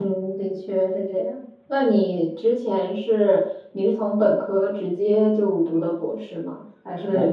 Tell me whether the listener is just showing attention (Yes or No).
Yes